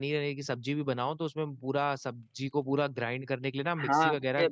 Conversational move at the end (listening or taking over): taking over